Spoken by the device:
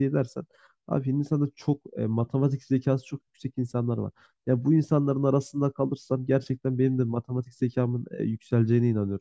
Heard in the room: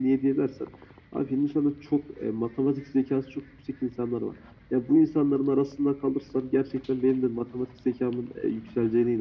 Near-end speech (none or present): none